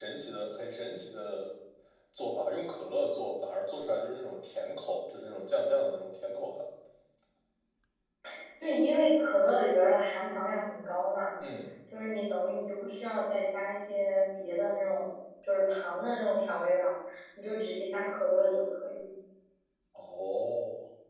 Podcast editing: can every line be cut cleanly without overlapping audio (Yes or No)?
Yes